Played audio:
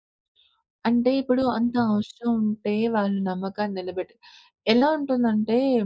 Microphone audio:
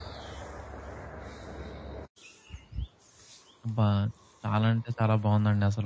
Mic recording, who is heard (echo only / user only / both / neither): user only